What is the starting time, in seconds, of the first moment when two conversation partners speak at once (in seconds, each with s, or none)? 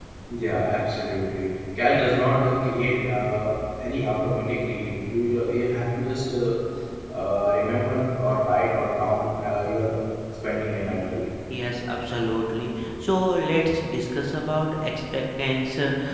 none